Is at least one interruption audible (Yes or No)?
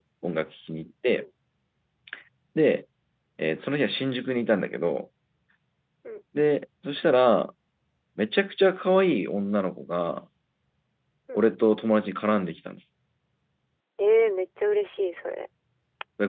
No